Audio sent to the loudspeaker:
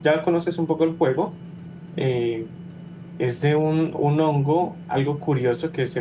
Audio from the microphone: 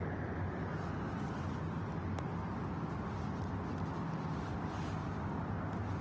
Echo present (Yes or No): No